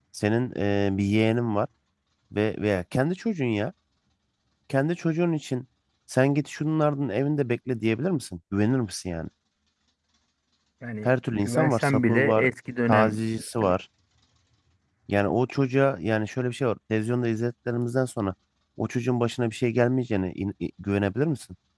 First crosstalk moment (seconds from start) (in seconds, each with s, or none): 11.0 s